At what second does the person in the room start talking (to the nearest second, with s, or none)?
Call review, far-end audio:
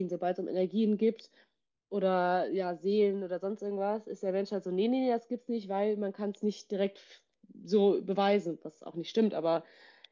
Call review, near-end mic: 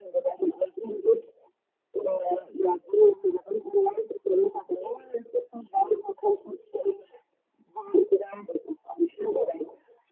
none